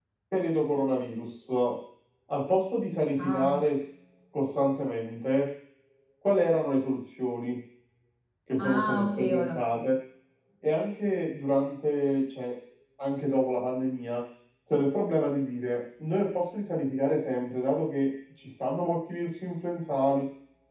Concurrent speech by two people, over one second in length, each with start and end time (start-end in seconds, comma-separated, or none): 8.6-9.8